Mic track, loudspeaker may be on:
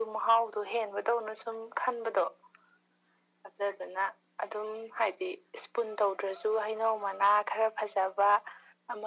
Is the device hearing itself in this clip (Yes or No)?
Yes